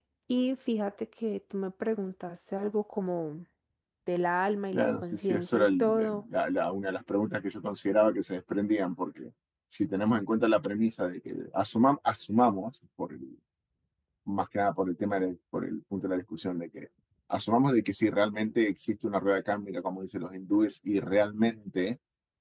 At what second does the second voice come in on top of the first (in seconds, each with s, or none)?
4.7 s